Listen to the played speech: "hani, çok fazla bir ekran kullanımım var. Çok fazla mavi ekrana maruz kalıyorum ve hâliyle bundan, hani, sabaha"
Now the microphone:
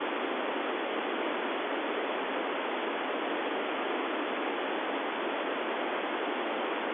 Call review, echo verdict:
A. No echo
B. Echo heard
A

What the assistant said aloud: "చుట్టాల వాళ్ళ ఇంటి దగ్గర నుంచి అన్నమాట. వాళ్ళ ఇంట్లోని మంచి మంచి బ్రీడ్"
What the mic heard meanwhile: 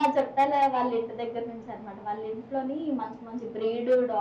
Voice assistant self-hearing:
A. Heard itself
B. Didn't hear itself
A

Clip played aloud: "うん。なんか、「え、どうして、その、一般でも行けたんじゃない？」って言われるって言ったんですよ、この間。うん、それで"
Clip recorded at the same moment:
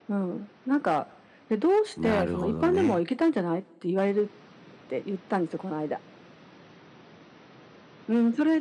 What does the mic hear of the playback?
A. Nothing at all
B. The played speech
B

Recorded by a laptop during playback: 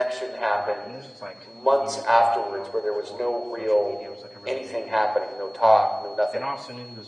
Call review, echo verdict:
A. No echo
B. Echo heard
B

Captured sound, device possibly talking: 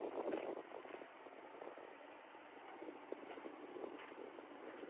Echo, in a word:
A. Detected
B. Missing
B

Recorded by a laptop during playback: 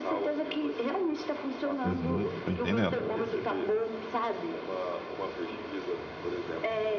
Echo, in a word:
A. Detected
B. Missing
A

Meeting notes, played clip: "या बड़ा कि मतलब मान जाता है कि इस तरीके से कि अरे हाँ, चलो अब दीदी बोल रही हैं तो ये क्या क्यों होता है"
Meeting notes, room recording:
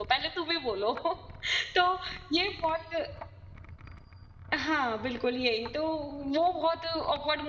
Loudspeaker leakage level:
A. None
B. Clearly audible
A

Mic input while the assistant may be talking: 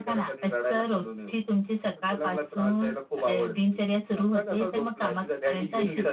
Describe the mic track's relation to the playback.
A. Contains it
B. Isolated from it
A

